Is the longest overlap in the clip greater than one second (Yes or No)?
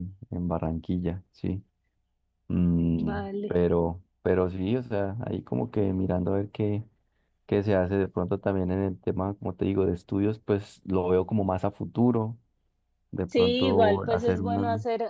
Yes